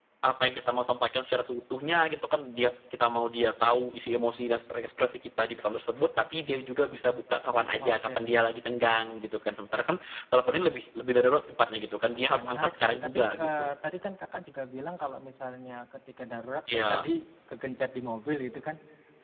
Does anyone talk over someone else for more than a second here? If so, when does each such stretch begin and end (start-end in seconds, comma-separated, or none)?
12.3-13.7